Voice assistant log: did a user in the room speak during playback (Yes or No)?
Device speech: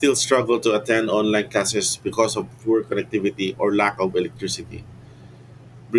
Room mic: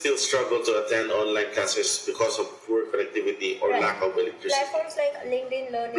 Yes